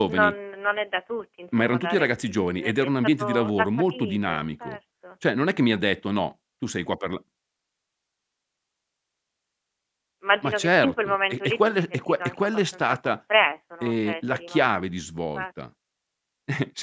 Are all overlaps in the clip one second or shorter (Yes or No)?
No